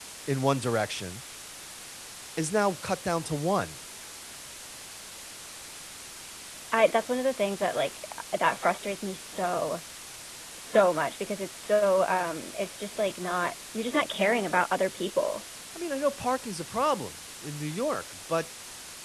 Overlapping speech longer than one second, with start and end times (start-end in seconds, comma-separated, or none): none